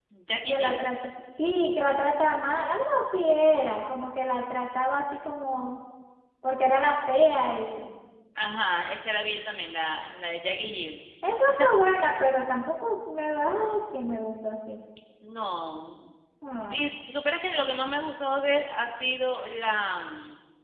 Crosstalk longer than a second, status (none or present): none